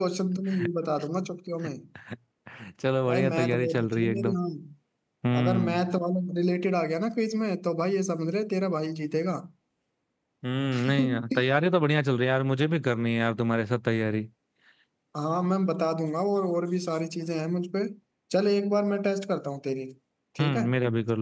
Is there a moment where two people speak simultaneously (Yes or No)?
Yes